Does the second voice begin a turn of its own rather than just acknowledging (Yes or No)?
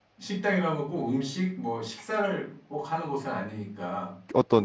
Yes